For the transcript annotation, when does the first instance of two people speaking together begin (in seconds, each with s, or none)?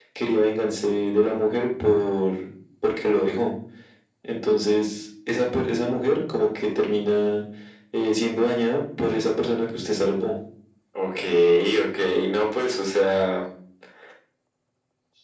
none